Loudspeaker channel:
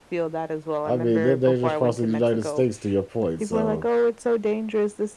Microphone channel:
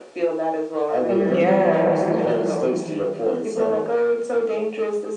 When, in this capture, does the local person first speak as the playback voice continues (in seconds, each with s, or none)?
1.1 s